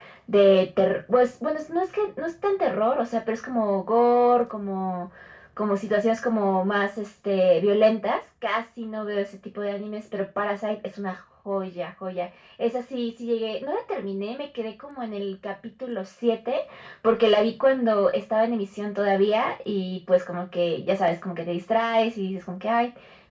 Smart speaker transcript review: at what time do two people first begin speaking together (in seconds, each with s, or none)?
none